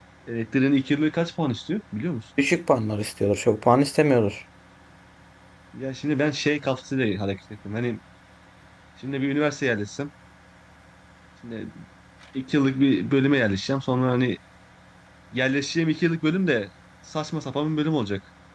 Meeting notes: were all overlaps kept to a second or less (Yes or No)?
Yes